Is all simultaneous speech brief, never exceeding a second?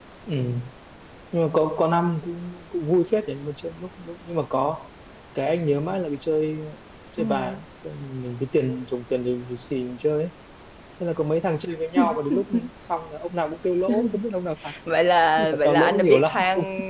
No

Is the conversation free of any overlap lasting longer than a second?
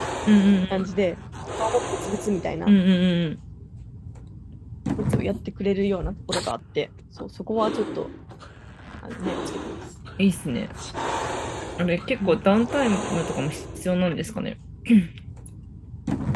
Yes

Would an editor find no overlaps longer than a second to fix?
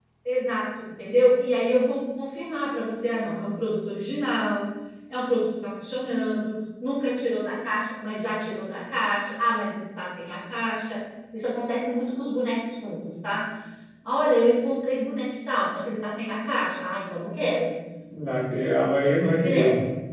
Yes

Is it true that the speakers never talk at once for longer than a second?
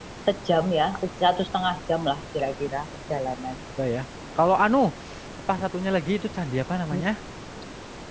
Yes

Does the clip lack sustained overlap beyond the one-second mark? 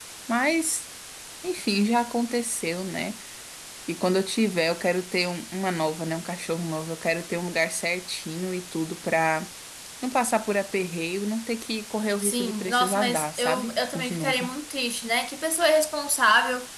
No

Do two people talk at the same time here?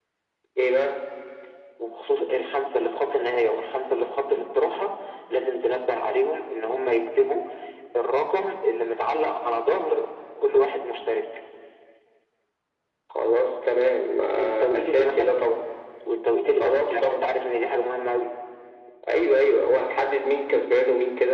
Yes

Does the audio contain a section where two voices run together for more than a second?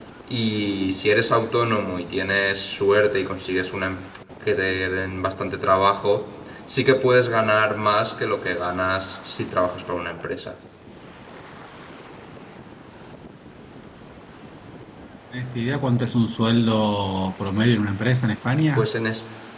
No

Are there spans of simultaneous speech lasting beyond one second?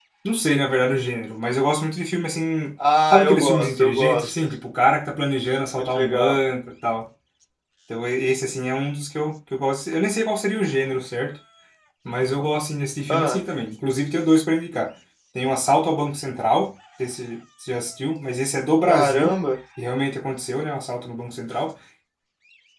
Yes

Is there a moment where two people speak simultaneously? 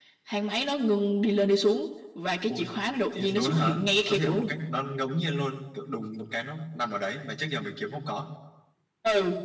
Yes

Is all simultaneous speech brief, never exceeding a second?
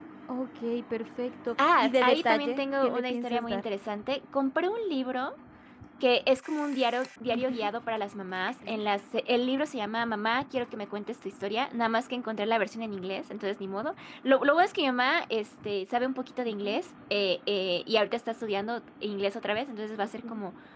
No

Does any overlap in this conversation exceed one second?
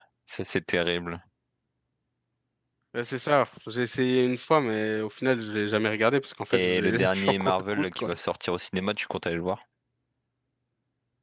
Yes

